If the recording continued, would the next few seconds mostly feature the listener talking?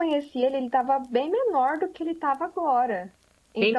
No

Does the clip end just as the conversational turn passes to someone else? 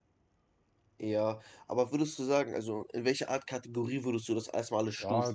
Yes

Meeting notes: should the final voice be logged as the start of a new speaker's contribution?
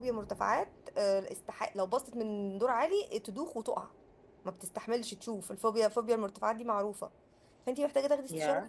No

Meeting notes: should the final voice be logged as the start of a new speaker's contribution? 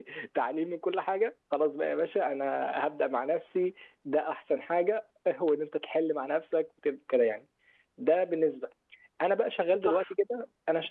No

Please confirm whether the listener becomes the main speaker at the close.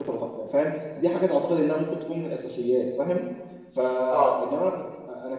No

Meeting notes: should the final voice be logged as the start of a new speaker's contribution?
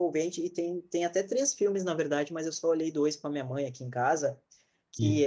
No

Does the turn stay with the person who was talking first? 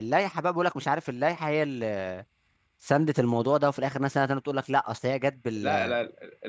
No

